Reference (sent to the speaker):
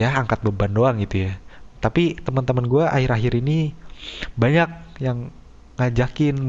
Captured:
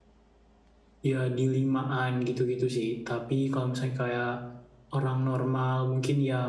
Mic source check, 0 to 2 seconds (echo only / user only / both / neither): user only